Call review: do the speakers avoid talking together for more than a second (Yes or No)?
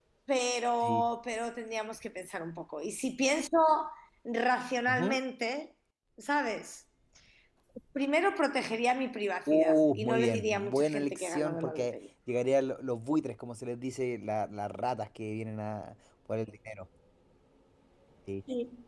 No